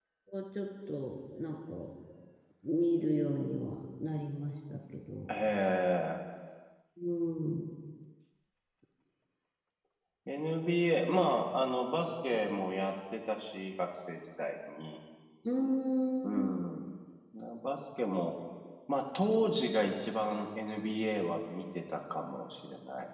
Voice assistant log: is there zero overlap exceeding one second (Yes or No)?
Yes